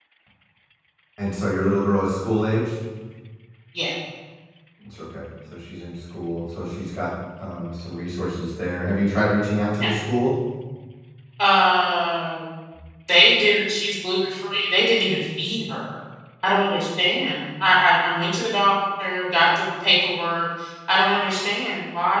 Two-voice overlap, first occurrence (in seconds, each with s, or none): none